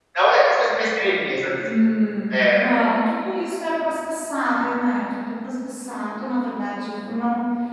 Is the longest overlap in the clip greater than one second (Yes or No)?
No